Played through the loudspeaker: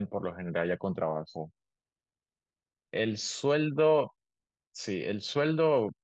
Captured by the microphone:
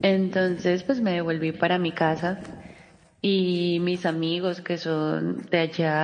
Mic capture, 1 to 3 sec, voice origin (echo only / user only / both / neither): user only